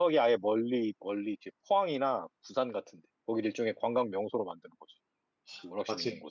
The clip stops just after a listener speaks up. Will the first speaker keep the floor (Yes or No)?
No